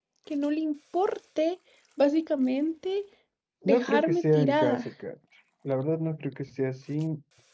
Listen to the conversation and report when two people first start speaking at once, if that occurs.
3.6 s

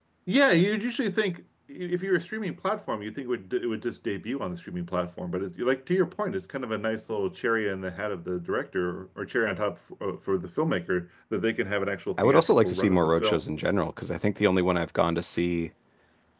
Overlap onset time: 12.2 s

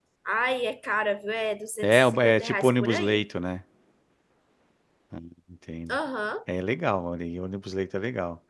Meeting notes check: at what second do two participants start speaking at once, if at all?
1.8 s

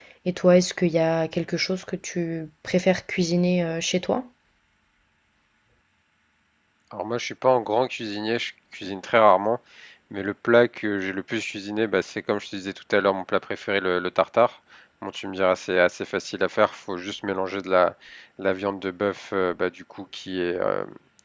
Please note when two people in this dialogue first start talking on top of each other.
none

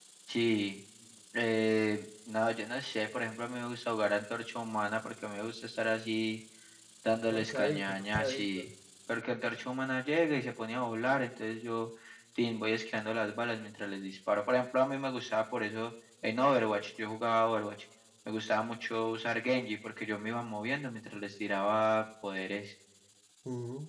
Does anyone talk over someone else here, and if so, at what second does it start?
7.3 s

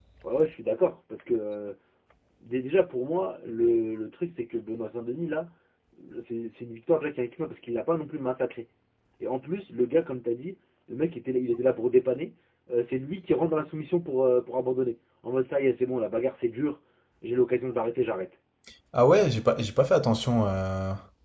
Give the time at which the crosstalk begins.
none

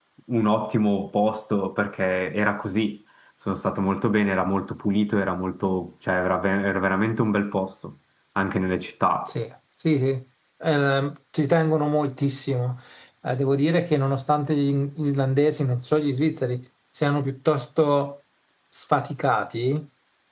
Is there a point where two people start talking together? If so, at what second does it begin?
none

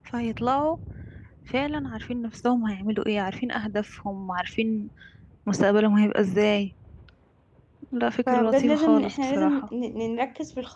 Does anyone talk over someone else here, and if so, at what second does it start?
8.3 s

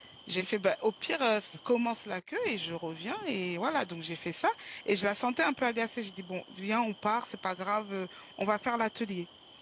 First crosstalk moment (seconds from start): none

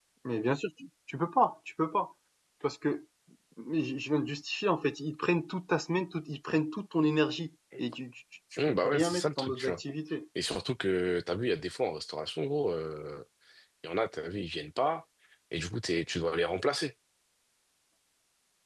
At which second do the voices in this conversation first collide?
8.6 s

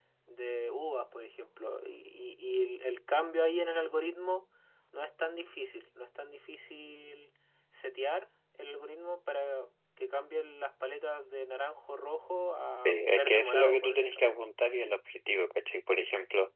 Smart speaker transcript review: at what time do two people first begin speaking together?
12.7 s

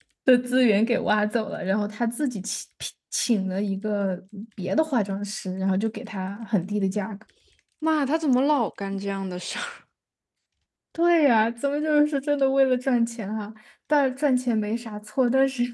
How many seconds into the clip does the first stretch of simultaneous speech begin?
none

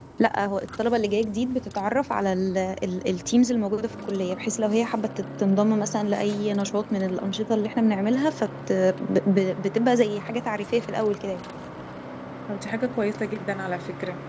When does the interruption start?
none

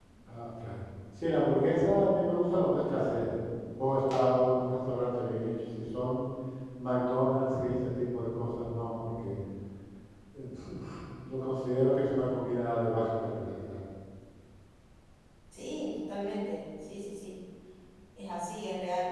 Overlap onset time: none

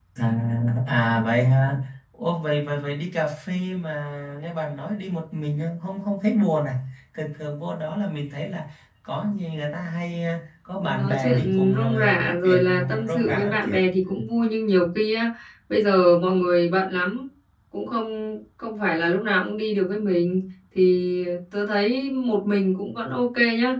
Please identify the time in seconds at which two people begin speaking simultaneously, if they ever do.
10.8 s

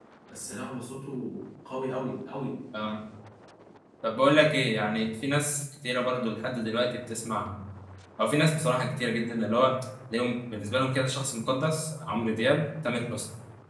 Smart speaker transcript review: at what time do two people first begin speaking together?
none

